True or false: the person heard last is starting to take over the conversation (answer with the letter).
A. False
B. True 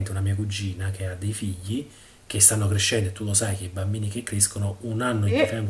A